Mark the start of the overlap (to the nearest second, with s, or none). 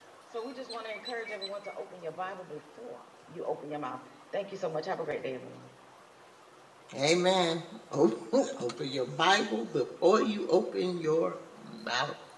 none